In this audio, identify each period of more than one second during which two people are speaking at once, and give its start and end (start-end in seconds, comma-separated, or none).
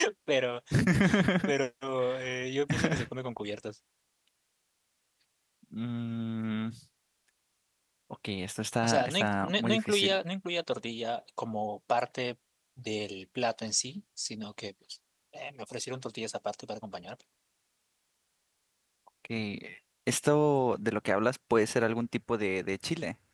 8.8-10.2